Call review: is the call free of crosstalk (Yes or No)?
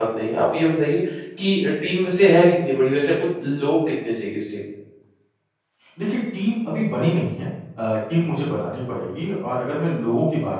Yes